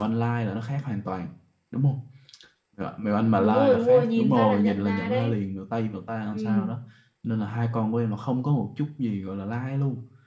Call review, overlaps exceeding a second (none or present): present